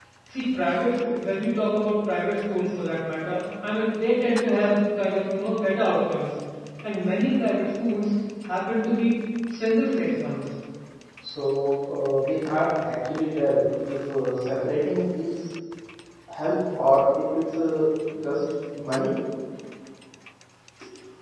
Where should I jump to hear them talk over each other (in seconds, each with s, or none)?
none